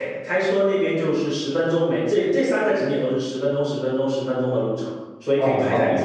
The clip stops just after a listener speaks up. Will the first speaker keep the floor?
No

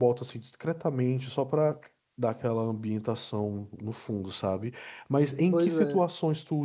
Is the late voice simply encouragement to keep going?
Yes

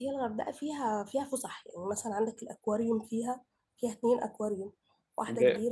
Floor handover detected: Yes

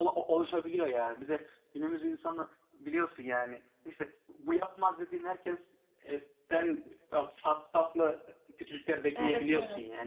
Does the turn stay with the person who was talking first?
No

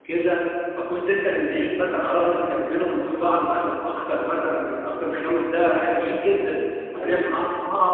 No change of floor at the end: Yes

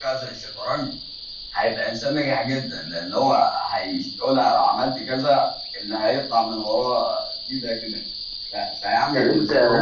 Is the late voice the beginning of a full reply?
Yes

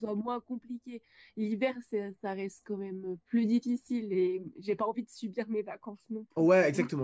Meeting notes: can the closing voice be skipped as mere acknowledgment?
No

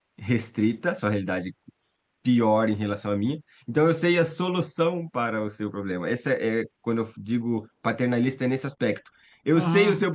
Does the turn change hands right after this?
No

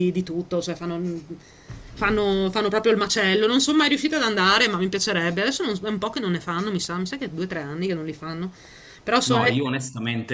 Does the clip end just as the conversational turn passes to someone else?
Yes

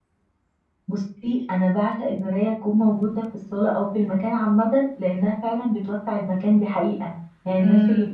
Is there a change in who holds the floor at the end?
No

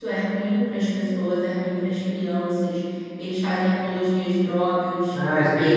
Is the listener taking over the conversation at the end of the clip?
Yes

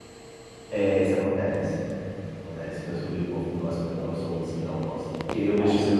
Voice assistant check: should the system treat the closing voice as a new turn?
No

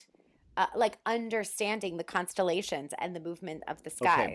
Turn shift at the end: Yes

